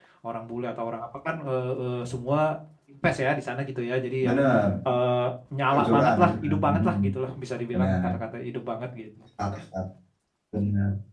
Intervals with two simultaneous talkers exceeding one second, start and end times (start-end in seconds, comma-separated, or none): 5.7-6.9